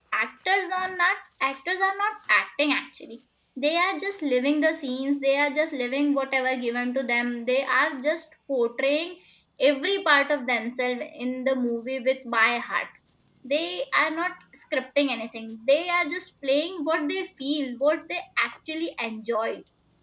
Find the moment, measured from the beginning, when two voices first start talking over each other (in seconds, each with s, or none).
none